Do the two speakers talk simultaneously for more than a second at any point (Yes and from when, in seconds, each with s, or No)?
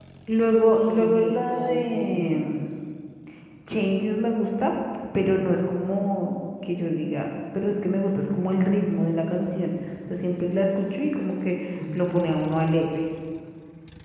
Yes, from 0.8 s